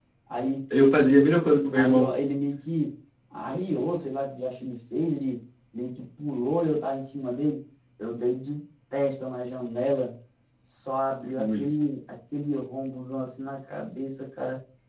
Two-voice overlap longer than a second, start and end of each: none

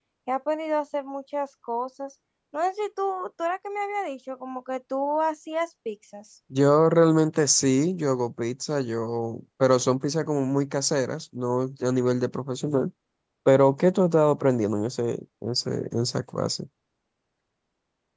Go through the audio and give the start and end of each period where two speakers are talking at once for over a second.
none

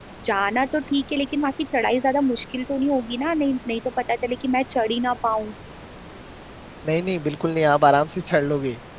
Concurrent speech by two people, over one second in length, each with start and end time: none

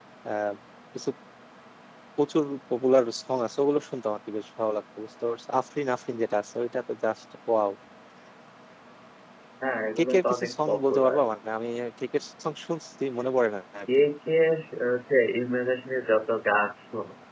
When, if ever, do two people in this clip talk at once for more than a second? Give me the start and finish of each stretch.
10.0-11.2

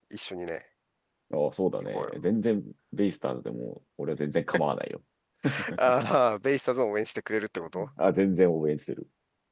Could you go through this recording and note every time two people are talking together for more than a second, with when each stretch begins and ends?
none

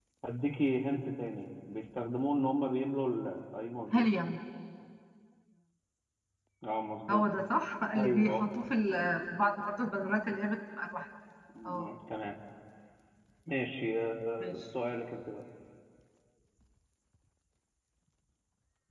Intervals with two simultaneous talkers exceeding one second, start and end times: none

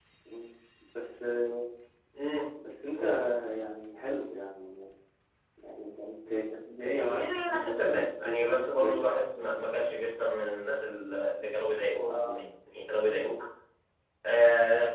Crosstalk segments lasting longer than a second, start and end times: 6.8-9.1

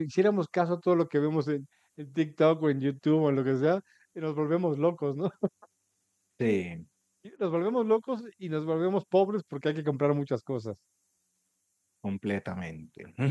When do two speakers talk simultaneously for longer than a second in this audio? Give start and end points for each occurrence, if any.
none

